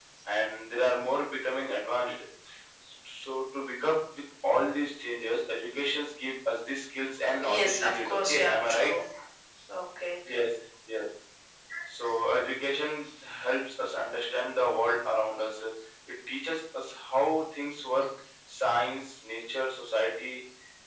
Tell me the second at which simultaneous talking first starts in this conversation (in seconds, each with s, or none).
7.3 s